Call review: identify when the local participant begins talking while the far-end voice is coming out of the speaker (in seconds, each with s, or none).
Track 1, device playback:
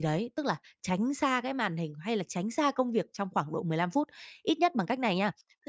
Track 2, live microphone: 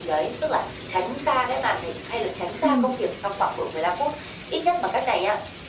2.6 s